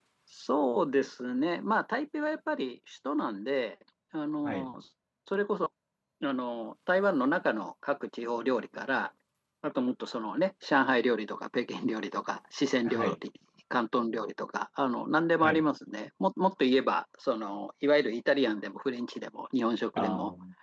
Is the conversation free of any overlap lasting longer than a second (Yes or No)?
Yes